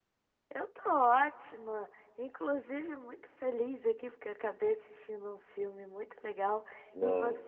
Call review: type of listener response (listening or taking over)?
listening